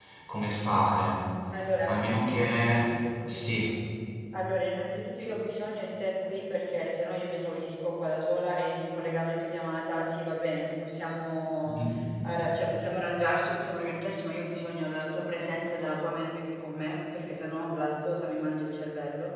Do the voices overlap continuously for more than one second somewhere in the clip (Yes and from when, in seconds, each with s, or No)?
No